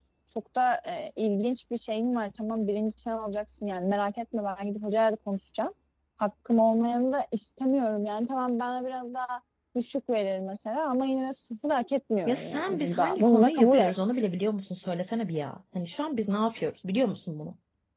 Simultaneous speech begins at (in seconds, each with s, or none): 12.3 s